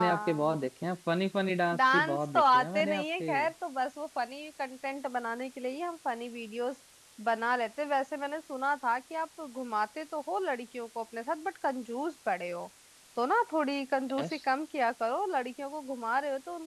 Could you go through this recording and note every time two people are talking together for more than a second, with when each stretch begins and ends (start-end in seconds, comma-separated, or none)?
1.8-3.3